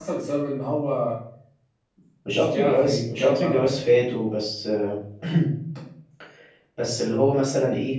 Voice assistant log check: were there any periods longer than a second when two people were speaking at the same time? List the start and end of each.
2.2-3.8

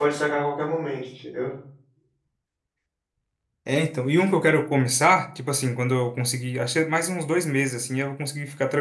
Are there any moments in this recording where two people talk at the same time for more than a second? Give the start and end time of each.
none

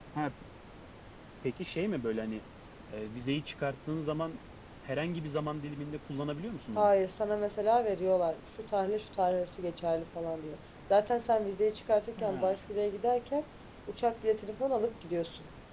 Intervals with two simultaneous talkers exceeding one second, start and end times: none

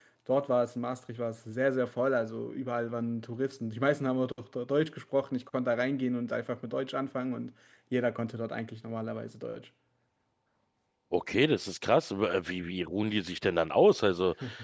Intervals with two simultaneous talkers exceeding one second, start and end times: none

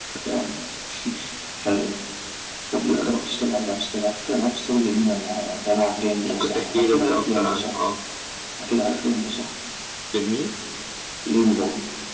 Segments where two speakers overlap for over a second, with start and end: 6.2-7.7

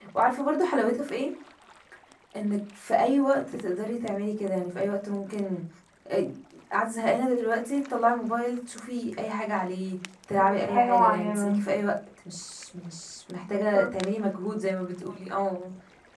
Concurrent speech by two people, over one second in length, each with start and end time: 10.3-11.6

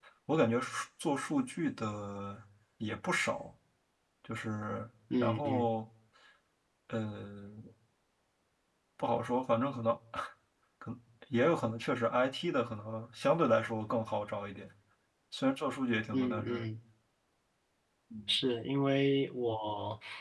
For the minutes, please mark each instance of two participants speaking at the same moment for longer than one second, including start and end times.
none

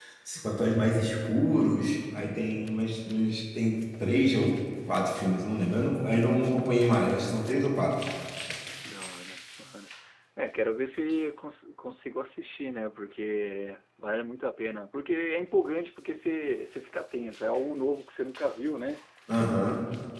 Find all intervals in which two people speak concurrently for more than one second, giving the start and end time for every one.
none

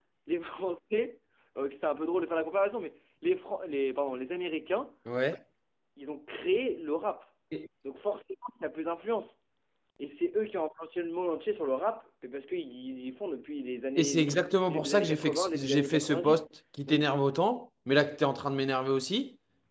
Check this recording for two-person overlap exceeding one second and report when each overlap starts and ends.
14.0-16.4

